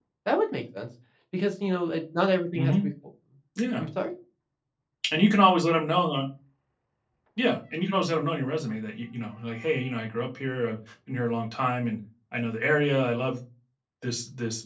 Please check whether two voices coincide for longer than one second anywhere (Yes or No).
No